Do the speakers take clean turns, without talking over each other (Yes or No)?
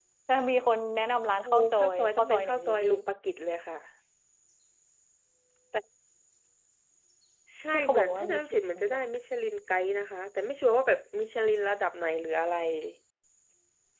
No